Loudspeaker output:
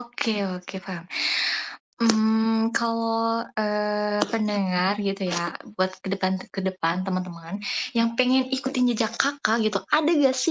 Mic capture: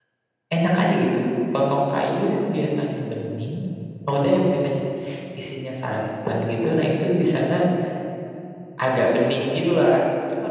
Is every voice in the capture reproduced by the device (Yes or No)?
No